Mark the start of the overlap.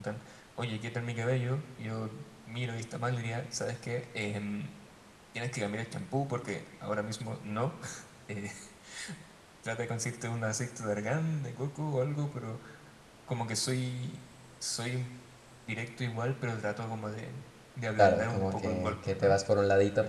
18 s

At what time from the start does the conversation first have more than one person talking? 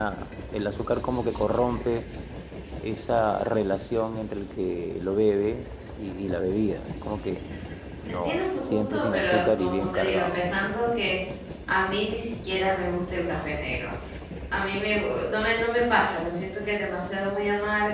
8 s

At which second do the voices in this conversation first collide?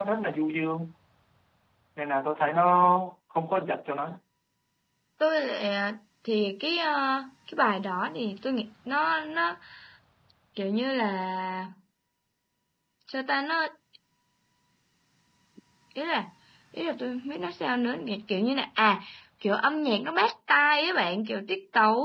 none

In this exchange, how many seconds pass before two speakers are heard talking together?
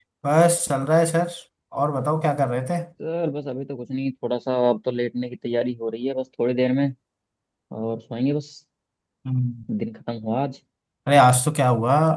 none

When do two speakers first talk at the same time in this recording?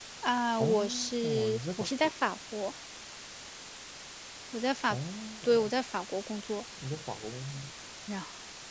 1 s

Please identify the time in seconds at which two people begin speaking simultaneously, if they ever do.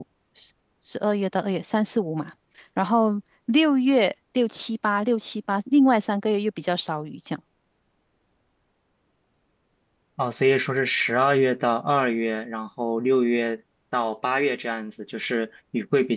none

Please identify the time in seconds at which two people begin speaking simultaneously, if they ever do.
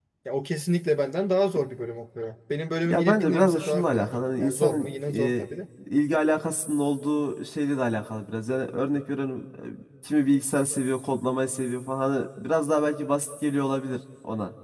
3 s

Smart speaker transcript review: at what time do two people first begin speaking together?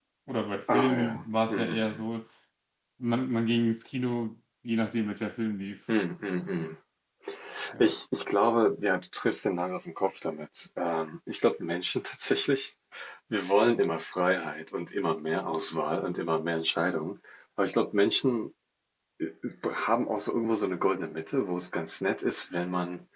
1 s

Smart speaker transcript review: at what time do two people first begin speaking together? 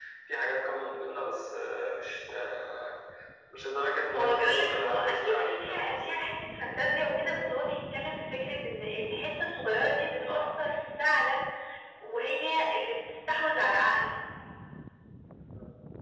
4 s

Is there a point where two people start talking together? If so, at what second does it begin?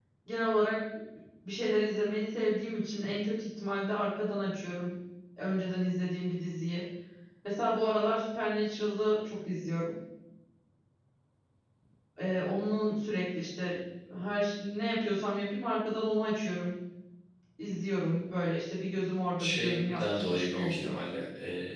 19 s

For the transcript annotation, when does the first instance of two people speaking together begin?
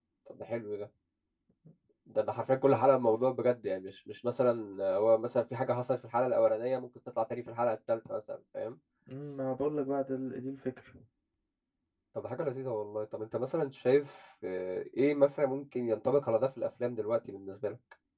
none

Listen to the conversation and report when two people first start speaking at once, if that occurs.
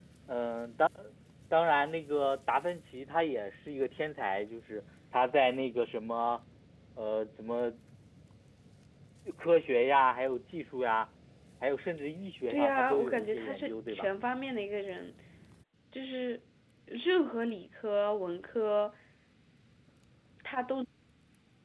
13 s

